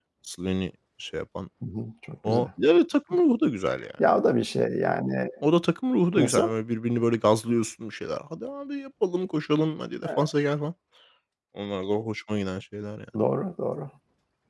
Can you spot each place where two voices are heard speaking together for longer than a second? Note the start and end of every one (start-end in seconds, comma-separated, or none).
none